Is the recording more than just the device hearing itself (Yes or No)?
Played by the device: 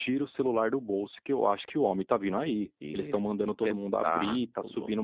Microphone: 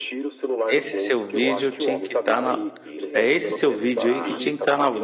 Yes